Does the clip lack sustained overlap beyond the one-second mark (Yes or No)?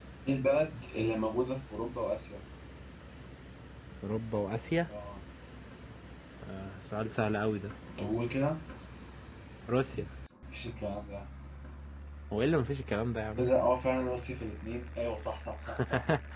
Yes